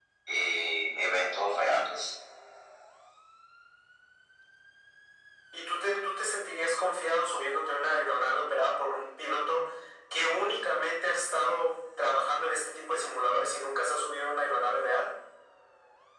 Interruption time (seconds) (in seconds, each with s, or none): none